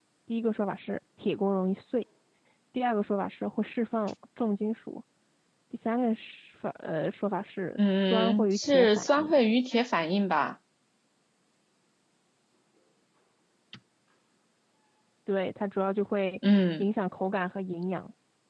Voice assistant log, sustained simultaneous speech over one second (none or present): present